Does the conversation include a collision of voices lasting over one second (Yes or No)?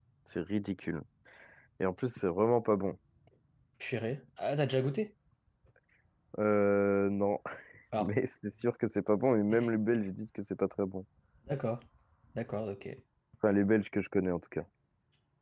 No